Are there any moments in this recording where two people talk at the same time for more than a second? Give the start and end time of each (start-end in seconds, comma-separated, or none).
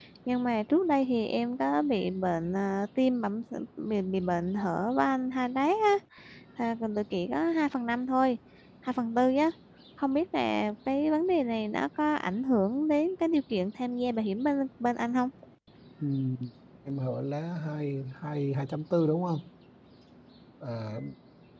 none